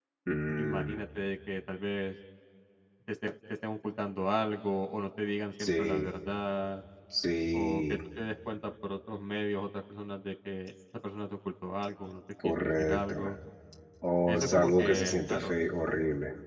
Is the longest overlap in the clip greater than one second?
Yes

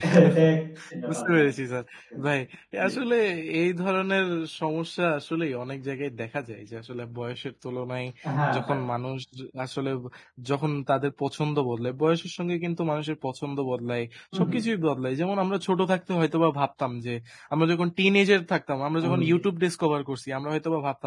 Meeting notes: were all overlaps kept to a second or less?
Yes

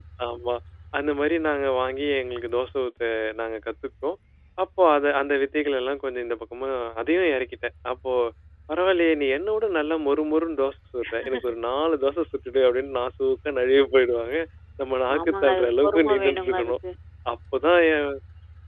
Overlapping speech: Yes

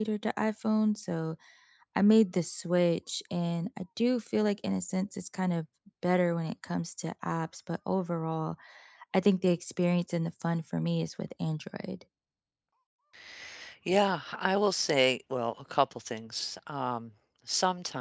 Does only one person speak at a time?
Yes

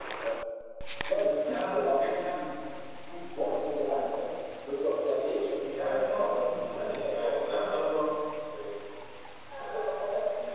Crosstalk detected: Yes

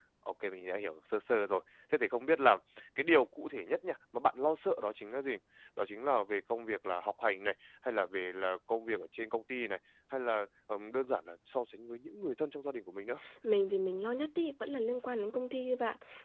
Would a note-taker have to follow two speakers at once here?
No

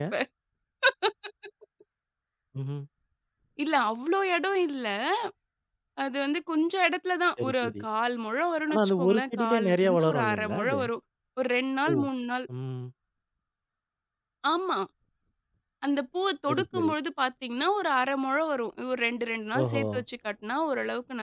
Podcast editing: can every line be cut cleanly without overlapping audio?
No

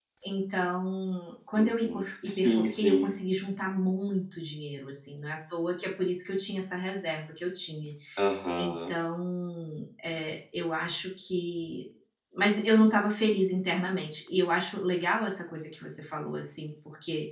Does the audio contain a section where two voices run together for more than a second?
Yes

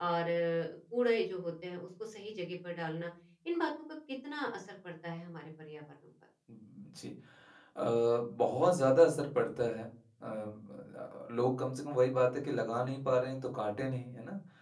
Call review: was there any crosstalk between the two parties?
No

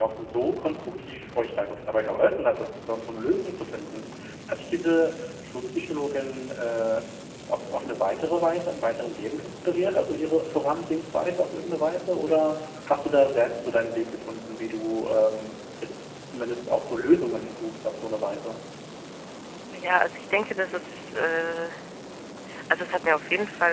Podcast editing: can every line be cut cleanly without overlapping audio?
Yes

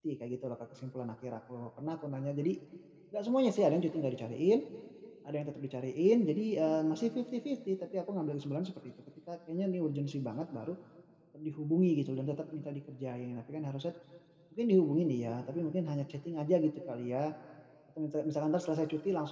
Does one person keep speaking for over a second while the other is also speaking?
No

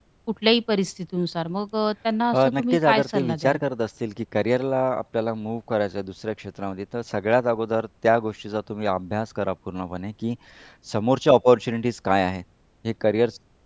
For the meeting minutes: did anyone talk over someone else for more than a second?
Yes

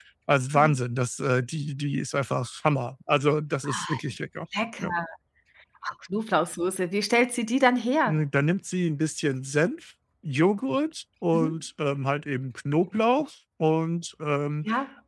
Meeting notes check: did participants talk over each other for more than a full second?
No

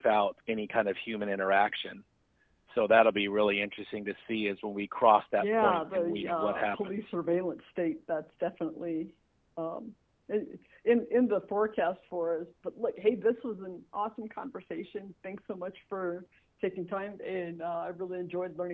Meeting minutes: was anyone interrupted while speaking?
Yes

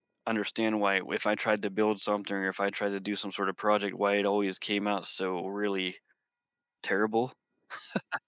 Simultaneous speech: No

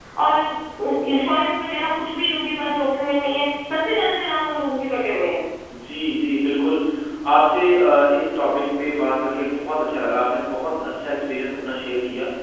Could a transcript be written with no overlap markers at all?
Yes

